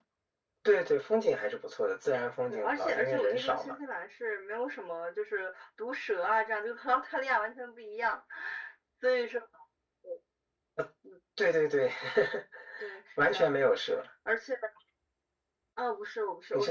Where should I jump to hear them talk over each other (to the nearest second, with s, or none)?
2 s